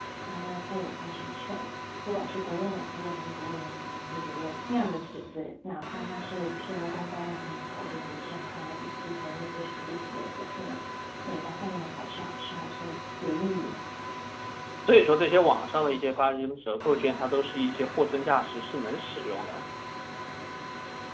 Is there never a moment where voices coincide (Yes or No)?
Yes